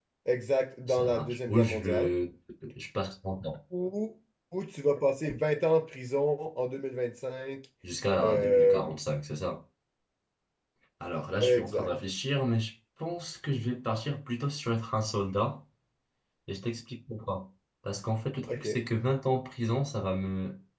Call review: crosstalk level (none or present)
present